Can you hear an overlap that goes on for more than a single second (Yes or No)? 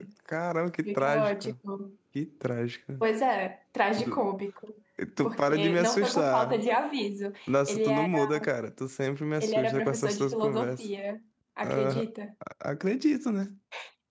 Yes